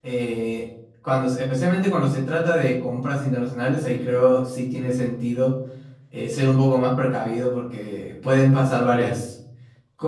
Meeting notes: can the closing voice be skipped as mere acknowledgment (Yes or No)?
Yes